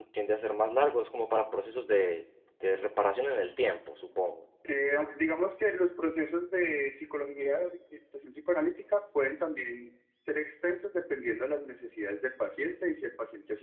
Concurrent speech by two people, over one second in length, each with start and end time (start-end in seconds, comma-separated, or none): none